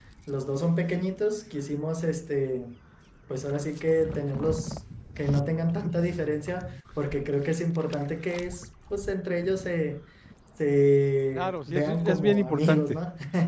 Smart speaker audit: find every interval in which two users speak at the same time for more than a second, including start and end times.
11.4-13.0

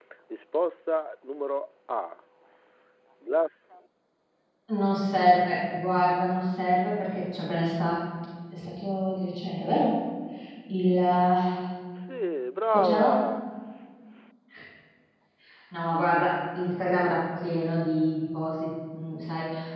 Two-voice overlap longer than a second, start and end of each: none

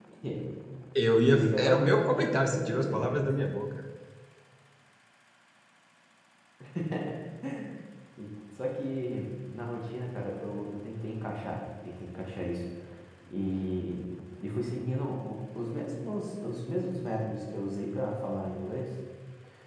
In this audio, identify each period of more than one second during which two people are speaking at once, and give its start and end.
1.3-3.2

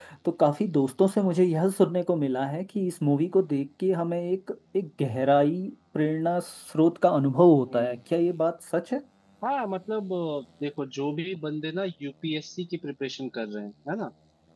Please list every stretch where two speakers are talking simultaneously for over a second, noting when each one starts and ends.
none

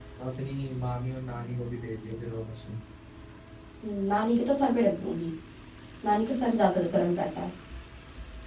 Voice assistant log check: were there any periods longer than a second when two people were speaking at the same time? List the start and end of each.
none

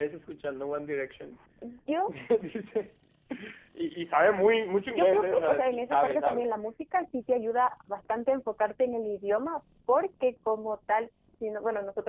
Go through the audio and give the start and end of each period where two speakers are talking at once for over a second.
4.9-6.5

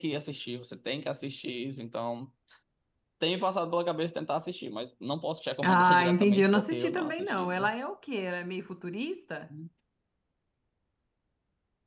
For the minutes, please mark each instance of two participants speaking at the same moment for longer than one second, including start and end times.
5.6-7.7

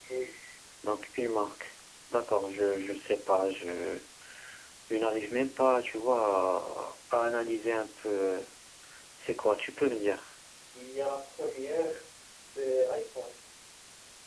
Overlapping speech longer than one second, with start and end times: none

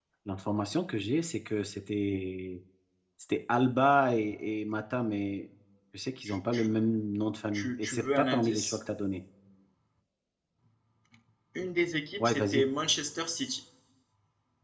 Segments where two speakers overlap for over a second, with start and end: 7.5-8.8

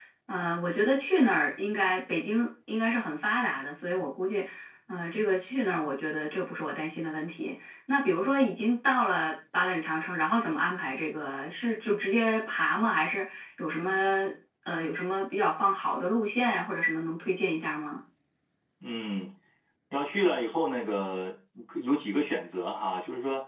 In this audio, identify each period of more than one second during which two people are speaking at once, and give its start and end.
none

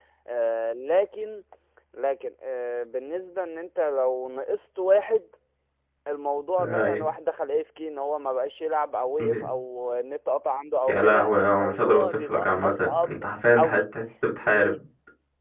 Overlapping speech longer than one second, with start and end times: 10.9-13.2

